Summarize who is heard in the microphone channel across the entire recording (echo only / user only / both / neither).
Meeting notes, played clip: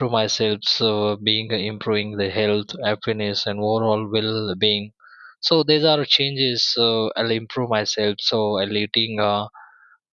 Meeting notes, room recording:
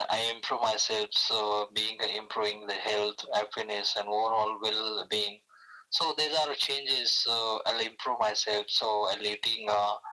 echo only